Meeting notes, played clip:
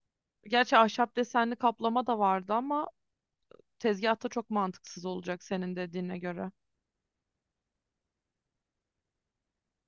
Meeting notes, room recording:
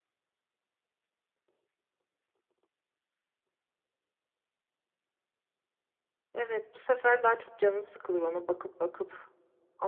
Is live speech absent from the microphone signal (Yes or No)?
No